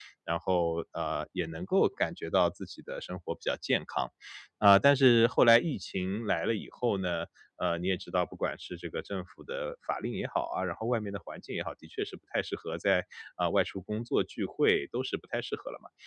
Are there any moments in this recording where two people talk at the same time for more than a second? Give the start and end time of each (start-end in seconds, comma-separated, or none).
none